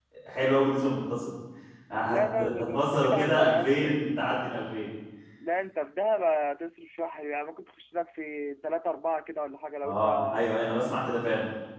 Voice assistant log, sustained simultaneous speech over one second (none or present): present